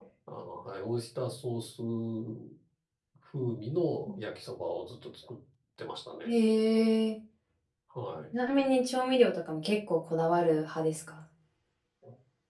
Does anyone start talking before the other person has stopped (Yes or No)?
No